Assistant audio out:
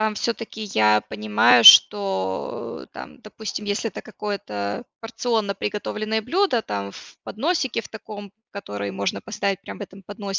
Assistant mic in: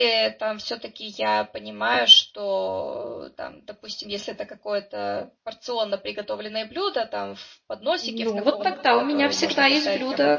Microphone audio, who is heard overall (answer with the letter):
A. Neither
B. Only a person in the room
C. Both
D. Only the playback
C